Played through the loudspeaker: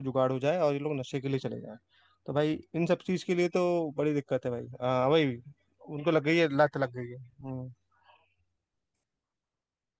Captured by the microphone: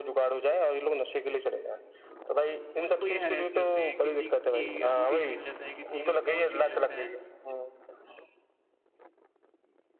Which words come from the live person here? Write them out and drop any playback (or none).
उनको ये हरेस करते हैं किसी की अंगूठी छीन लेते हैं किसी का फोन छीन लेते हैं